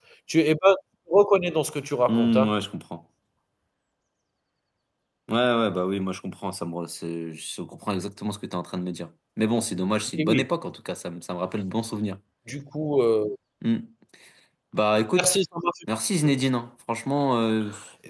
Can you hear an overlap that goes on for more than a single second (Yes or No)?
No